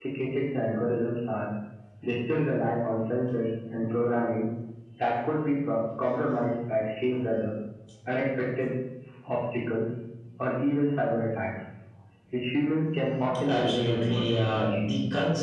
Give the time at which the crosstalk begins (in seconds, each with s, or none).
13.4 s